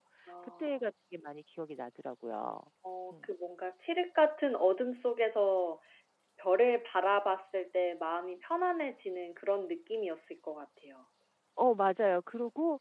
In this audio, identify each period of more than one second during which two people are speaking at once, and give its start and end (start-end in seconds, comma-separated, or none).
none